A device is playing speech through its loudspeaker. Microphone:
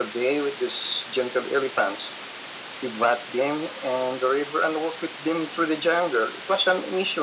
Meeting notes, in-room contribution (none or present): none